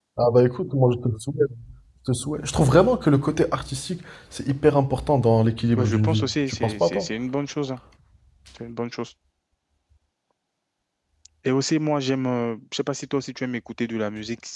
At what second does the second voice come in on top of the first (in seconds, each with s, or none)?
5.8 s